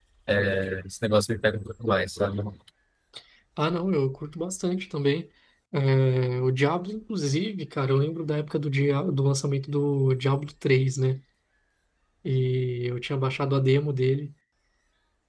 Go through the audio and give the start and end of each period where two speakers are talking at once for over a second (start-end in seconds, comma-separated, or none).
none